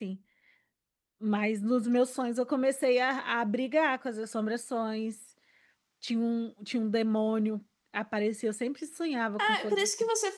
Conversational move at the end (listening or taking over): taking over